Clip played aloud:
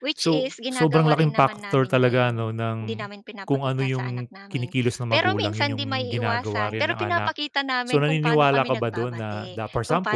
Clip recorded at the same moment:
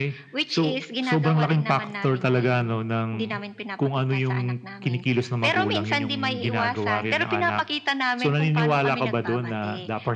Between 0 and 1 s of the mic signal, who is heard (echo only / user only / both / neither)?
echo only